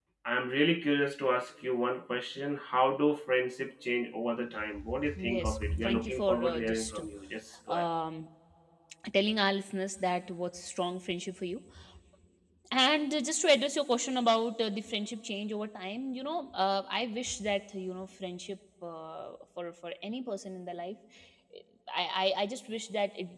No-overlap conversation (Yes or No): No